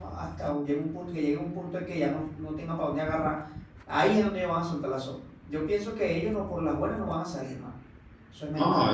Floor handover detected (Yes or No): Yes